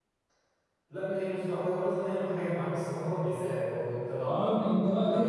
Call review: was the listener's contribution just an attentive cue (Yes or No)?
No